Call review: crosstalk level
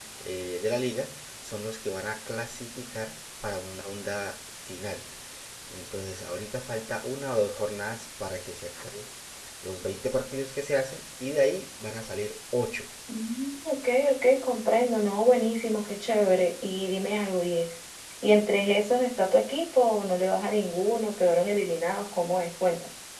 none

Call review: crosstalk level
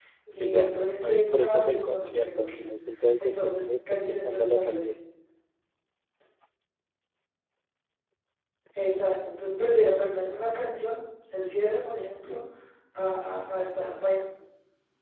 present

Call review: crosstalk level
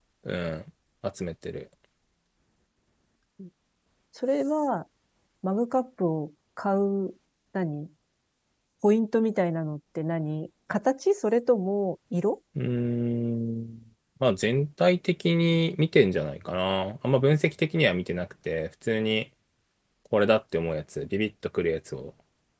none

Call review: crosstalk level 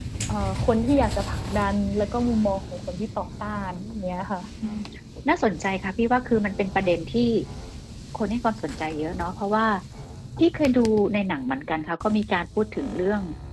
none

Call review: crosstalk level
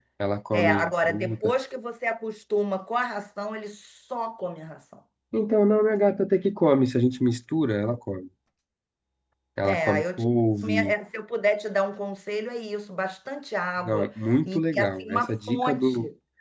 present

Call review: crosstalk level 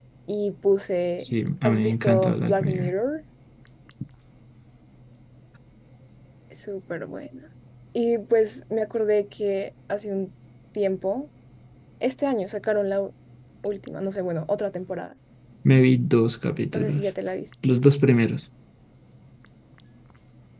present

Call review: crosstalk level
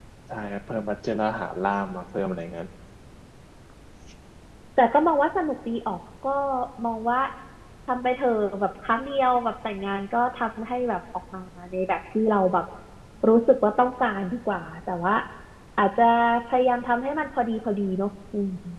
none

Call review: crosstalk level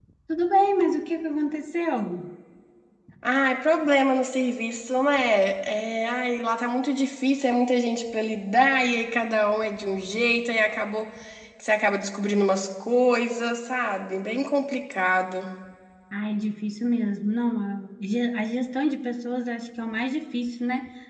none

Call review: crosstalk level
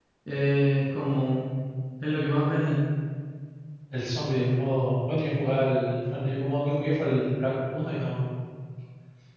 none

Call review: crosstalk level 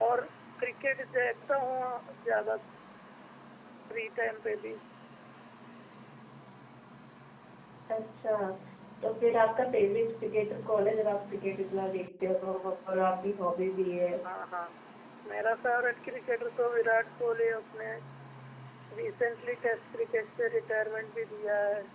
none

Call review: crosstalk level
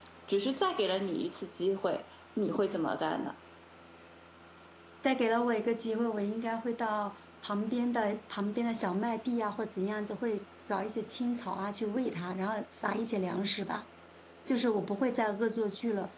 none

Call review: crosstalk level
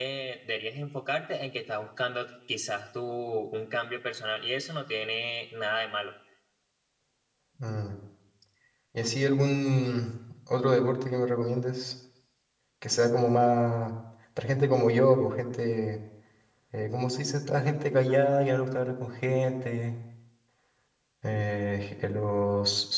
none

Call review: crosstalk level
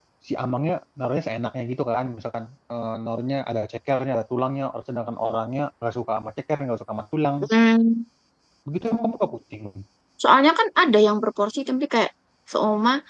none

